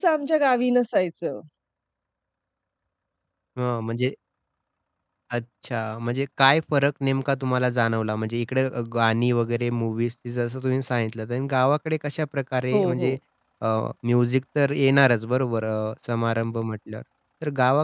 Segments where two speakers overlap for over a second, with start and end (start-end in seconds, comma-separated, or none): none